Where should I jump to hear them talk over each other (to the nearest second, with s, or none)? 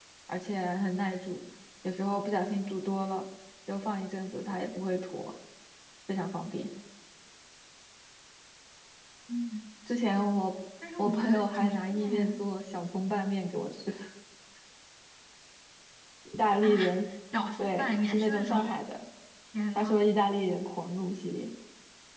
11 s